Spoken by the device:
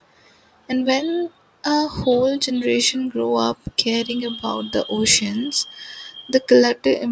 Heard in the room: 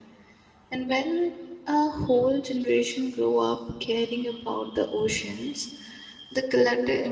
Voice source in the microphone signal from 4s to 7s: echo only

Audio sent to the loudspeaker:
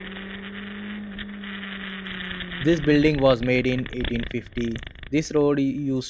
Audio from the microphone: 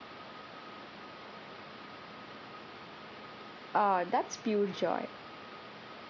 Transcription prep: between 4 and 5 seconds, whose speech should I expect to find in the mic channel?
user only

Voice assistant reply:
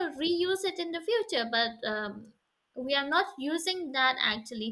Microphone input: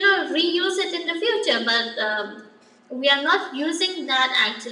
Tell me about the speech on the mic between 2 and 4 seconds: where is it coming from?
echo only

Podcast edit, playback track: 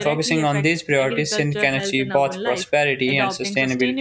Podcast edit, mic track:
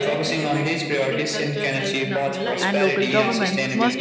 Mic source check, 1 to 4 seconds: both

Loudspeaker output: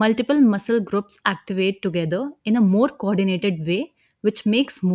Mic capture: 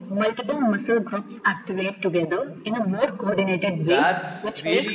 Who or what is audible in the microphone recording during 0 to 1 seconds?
echo only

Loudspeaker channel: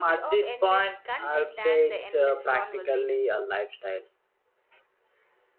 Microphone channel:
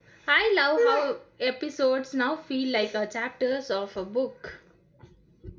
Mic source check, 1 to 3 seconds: user only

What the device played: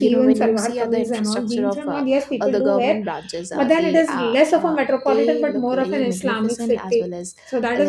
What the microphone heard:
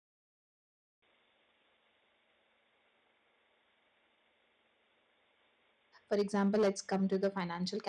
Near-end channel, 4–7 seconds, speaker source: user only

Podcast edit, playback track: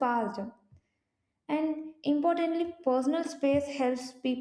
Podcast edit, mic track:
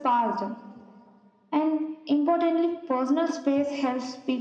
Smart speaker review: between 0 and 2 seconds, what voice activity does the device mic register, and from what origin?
echo only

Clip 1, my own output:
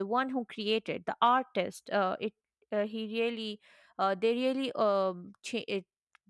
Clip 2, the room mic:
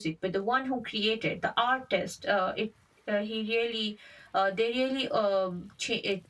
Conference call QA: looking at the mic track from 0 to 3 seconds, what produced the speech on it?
echo only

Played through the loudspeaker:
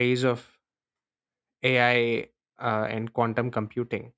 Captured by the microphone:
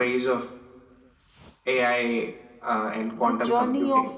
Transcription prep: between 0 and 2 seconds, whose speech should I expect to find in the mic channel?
echo only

